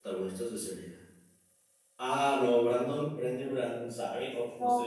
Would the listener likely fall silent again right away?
No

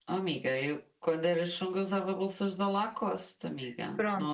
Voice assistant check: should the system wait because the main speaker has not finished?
No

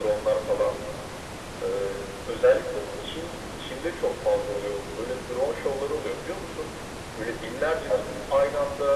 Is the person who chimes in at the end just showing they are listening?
Yes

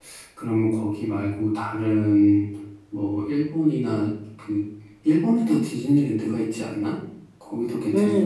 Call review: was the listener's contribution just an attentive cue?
No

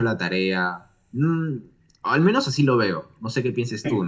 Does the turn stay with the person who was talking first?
Yes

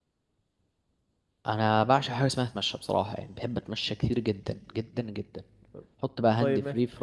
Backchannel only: Yes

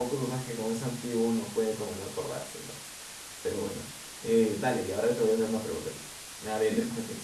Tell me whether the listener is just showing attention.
Yes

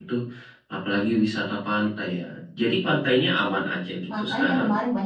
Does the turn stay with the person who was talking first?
No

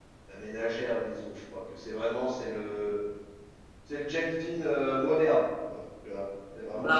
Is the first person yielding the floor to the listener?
No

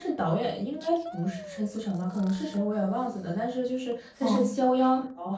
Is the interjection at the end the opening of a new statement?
No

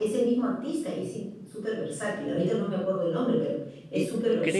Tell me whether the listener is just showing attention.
No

